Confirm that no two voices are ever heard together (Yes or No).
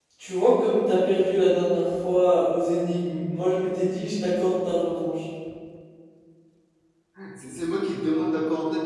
Yes